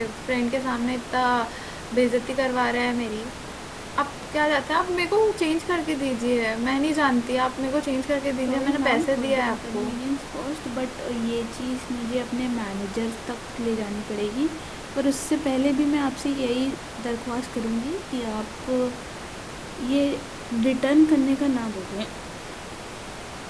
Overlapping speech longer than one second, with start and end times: 8.5-9.9

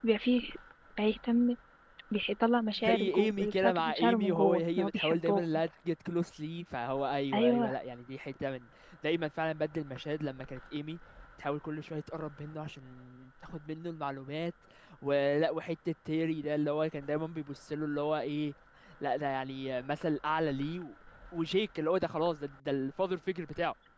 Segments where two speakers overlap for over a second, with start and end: 2.8-5.4

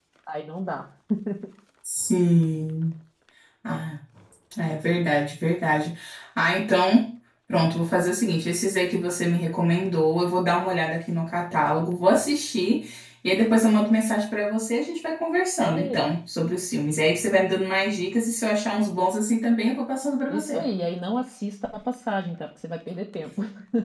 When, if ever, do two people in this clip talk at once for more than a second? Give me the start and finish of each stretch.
none

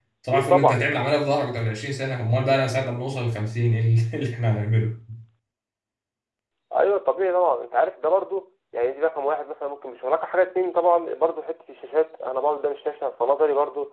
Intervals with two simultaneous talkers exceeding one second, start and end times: none

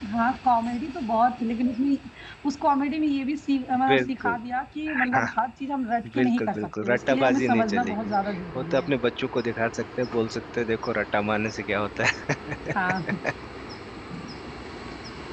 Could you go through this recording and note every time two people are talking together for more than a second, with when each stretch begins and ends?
6.2-8.1

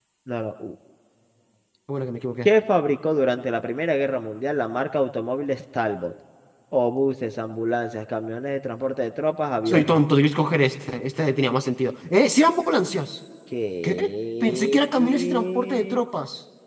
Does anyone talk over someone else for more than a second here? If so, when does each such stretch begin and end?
14.4-16.0

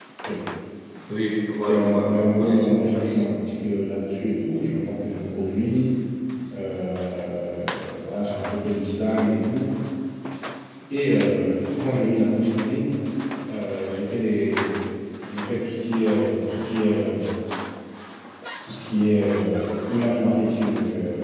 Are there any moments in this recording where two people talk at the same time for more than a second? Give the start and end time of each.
1.6-3.2

